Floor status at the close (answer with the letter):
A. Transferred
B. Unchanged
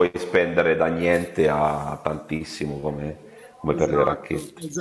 A